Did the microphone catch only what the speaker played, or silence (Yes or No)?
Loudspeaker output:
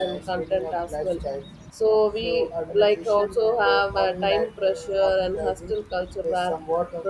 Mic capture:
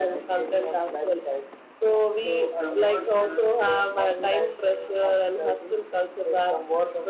No